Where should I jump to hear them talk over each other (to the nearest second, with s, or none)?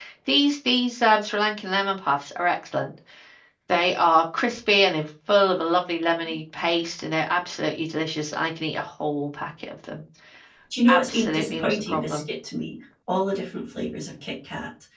11 s